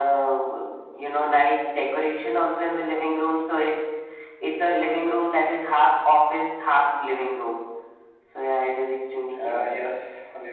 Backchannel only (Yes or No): No